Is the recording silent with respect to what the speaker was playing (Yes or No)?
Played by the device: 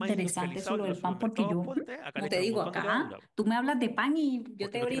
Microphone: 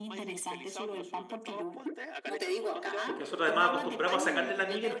No